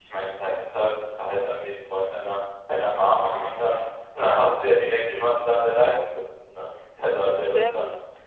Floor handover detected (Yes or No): Yes